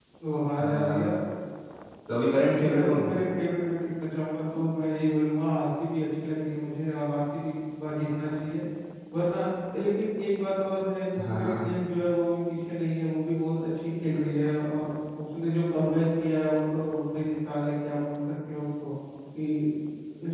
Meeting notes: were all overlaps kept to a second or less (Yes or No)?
Yes